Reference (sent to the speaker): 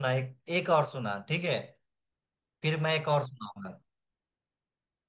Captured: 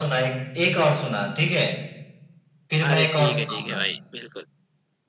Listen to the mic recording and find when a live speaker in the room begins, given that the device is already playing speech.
2.9 s

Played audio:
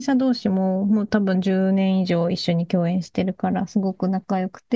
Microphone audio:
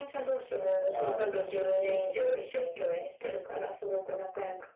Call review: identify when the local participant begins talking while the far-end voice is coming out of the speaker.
0.9 s

